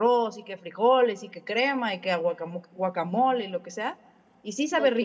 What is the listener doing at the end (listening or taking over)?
listening